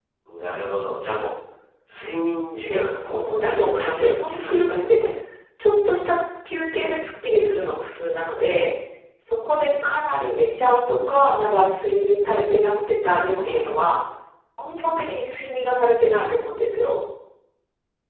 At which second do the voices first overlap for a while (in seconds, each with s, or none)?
2.7 s